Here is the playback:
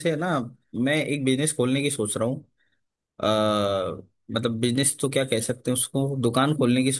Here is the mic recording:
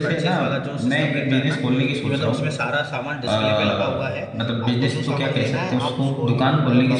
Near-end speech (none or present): present